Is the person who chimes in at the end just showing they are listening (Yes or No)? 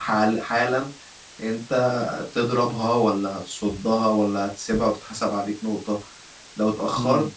Yes